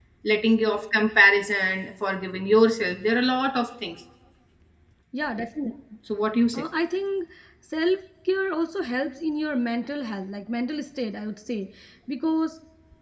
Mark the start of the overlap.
none

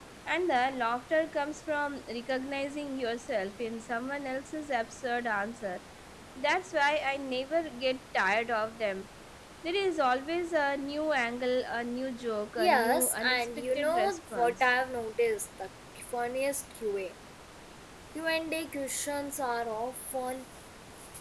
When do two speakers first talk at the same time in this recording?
13 s

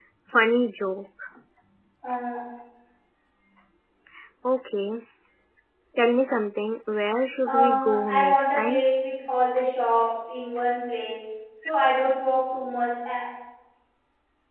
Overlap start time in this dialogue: 7 s

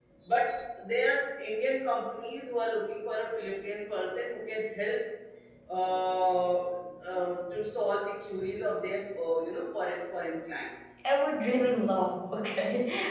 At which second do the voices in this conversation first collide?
none

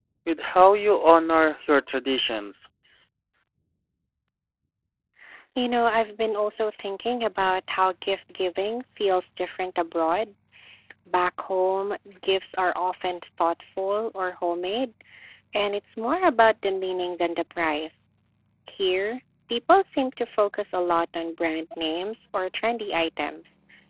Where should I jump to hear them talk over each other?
none

